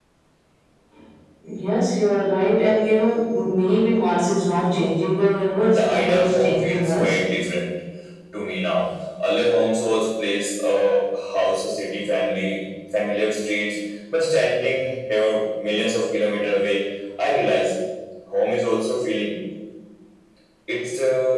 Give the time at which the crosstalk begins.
5.6 s

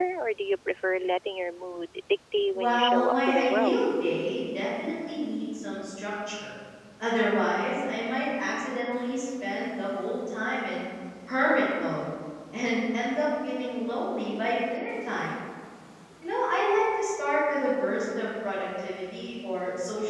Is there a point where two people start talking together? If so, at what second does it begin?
2.5 s

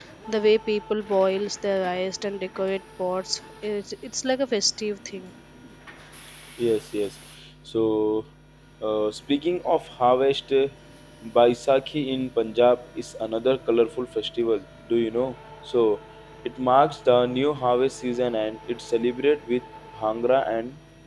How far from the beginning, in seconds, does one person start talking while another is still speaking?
none

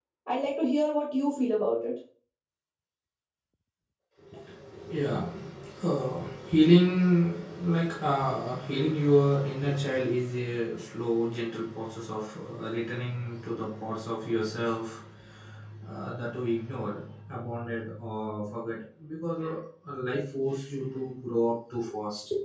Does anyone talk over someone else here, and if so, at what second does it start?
none

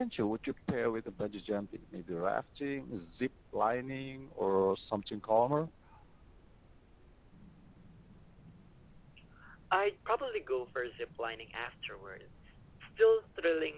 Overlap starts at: none

